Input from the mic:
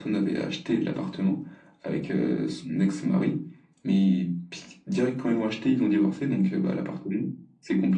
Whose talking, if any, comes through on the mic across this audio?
echo only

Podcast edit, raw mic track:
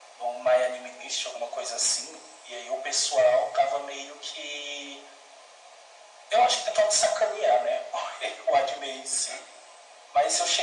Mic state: echo only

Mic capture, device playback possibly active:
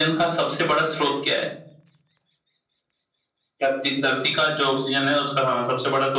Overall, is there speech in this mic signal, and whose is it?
echo only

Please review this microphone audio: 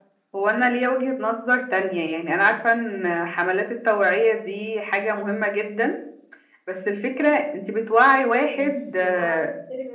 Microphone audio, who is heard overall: both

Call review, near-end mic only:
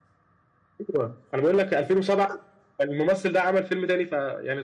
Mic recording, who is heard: echo only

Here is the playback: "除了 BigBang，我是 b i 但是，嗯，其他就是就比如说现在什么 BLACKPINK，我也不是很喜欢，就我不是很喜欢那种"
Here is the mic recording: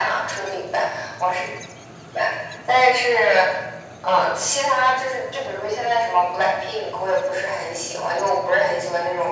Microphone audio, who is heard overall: echo only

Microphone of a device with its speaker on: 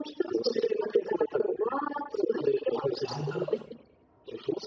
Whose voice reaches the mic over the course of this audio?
both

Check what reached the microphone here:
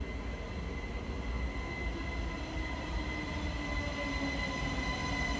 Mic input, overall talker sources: neither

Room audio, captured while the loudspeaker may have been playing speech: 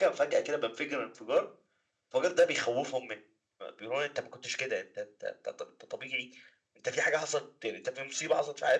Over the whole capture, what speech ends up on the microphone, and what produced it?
echo only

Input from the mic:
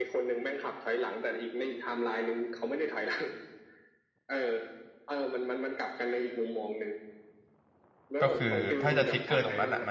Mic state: both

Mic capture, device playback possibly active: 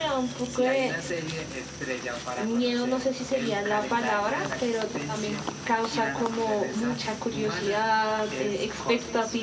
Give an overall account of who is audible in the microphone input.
echo only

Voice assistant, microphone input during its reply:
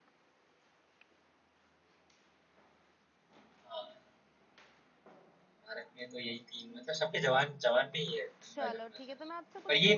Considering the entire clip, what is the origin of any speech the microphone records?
both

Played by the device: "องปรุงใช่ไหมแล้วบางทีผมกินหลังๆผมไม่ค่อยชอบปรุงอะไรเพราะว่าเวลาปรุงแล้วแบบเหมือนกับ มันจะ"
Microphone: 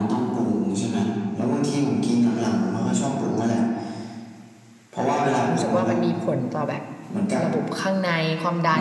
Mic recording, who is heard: both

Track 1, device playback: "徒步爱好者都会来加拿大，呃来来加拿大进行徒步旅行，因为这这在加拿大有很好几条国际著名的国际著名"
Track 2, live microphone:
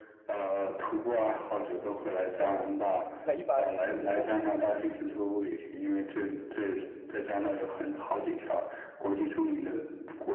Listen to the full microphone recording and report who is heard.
both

